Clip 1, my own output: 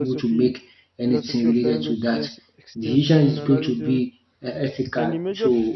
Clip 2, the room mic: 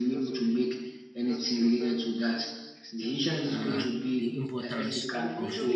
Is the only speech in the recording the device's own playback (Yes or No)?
No